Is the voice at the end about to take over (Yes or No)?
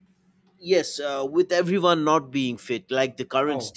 Yes